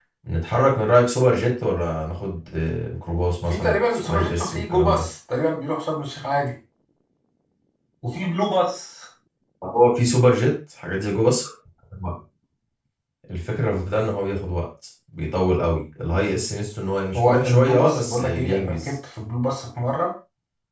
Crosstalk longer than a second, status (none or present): present